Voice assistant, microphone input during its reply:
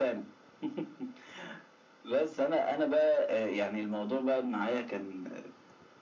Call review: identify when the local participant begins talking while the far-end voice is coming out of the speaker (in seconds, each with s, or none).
none